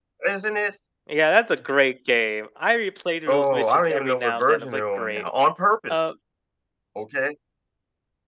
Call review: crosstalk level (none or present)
present